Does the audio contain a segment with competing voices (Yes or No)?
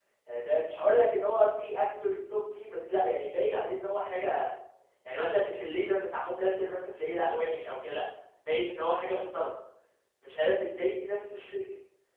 No